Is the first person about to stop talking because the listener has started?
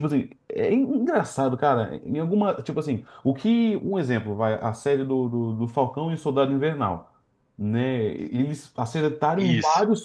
No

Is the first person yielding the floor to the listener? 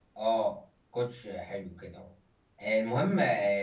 No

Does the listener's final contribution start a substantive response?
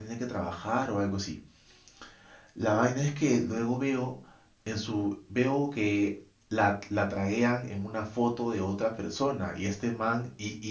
No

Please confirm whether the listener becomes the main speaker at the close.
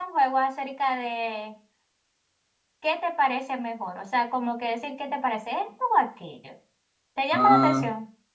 Yes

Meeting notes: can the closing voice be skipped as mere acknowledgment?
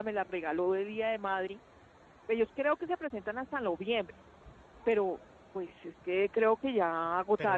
No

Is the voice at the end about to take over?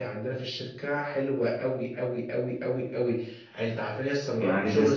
Yes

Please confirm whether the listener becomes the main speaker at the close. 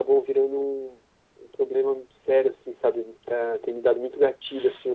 No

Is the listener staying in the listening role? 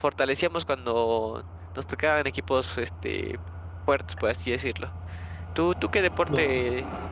Yes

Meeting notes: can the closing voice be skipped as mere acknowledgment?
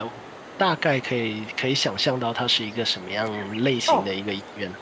No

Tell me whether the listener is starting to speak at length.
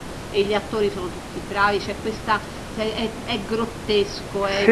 No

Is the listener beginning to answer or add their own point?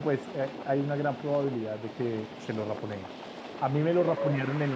No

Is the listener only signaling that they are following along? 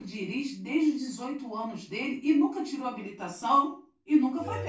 No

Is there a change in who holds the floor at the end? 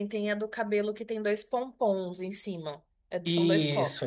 Yes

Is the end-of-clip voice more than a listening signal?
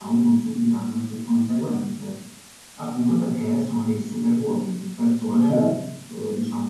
No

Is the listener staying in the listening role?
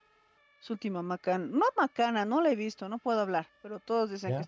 Yes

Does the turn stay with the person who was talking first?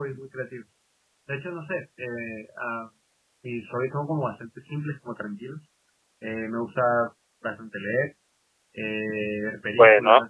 Yes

